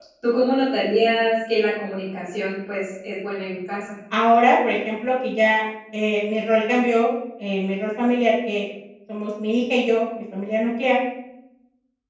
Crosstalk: none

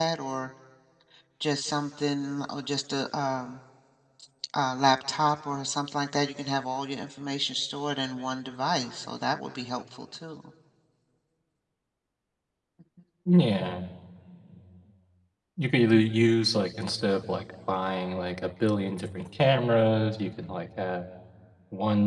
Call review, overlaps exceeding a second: none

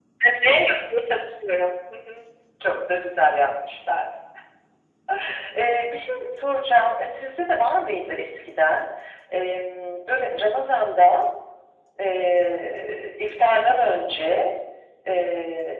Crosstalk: none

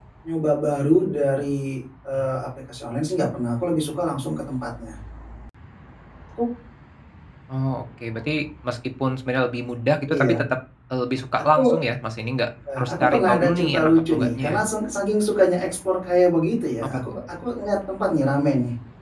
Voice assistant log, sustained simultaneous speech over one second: present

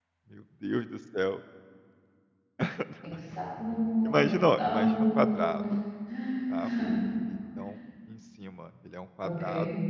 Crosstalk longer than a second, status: present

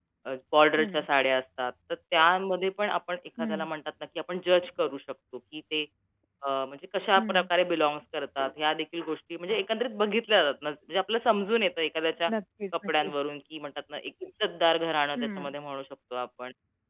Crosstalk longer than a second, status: none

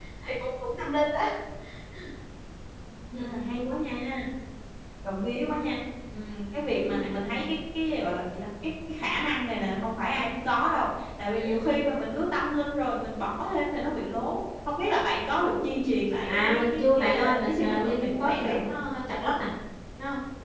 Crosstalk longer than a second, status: present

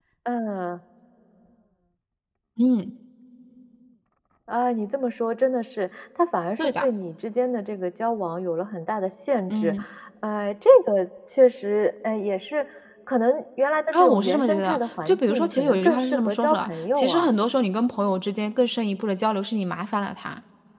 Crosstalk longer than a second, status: present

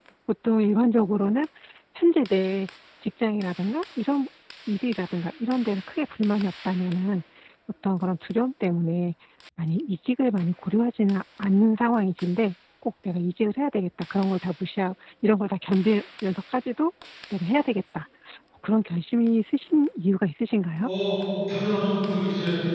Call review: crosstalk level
none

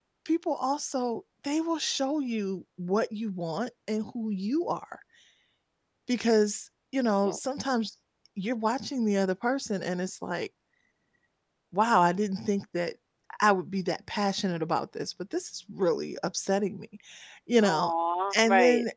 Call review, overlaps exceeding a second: none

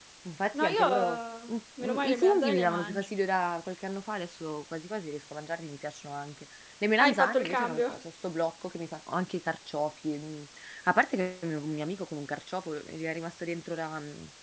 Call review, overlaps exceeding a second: present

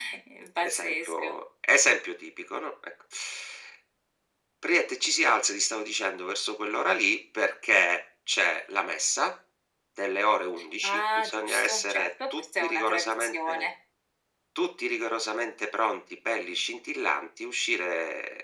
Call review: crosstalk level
present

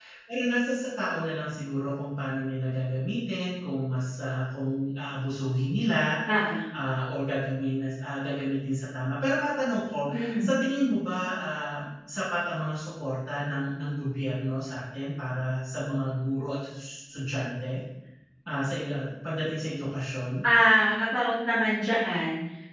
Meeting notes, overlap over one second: none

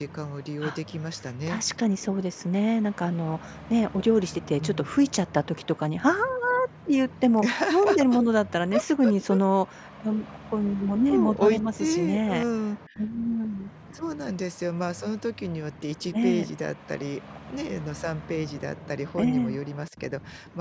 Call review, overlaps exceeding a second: present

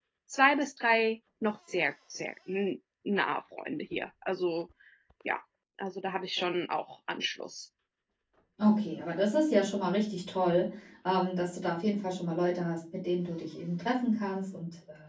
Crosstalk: none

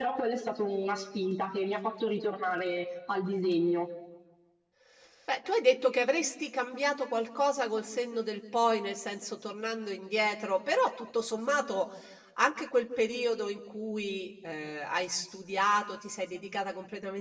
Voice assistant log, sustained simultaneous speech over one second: none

